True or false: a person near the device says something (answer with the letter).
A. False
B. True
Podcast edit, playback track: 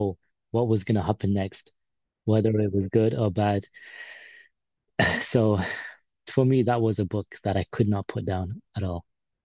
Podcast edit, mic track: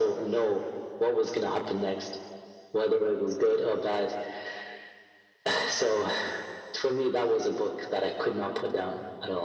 A